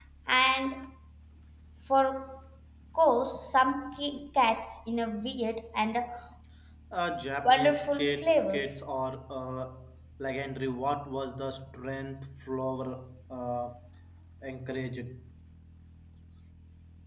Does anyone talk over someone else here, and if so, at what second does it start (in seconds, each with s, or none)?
7.4 s